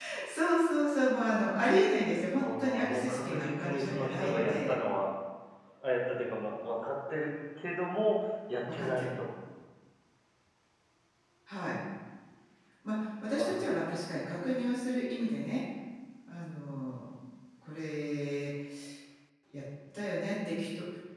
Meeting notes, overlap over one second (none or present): present